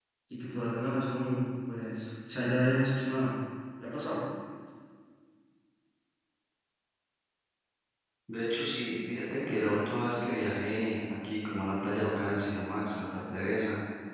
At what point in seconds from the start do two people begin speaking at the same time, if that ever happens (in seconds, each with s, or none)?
none